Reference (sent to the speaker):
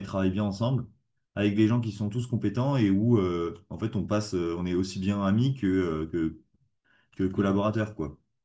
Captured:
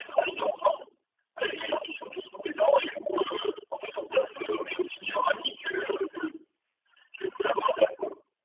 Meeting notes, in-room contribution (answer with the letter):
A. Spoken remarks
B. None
B